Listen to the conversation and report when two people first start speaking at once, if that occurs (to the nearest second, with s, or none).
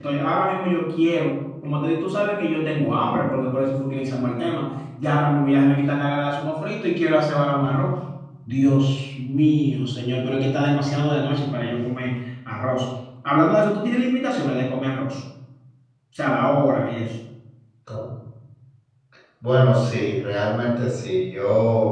none